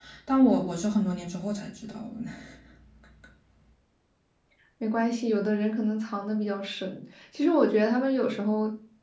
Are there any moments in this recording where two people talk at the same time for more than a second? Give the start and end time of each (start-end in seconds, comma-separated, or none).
none